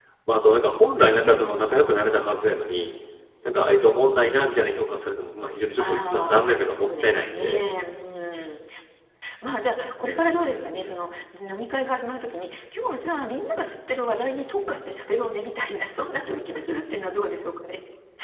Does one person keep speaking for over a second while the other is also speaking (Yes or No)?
Yes